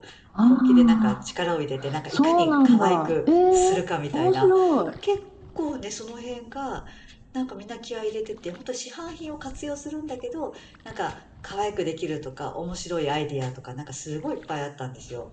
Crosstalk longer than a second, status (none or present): present